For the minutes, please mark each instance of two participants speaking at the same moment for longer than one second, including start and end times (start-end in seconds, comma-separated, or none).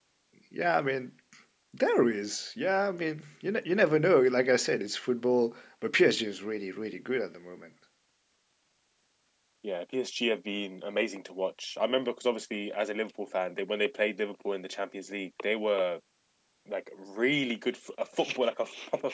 none